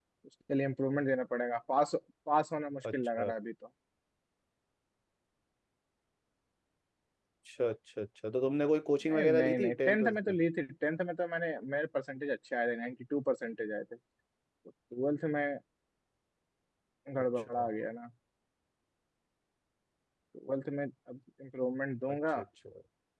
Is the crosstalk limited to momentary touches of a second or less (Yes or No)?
No